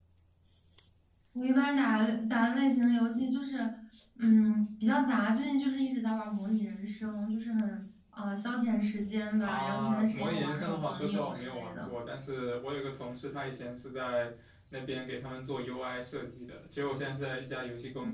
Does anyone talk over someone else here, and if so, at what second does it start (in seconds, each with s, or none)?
9.4 s